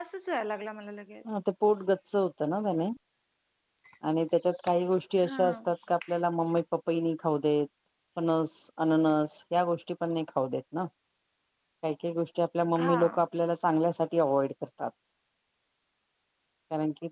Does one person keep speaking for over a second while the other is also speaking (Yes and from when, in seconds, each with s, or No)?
No